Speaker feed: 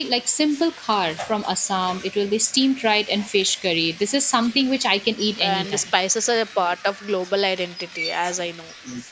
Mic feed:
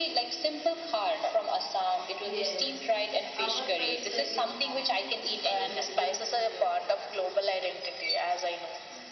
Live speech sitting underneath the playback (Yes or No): Yes